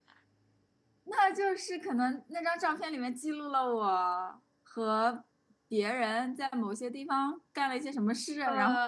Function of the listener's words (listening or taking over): taking over